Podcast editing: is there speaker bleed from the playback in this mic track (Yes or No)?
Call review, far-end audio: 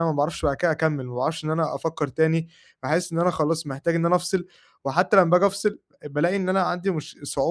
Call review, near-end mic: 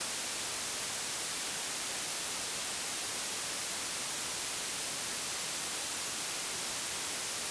No